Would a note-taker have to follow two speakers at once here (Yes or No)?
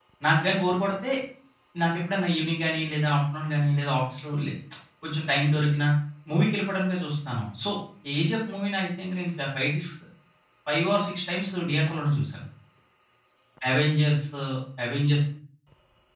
No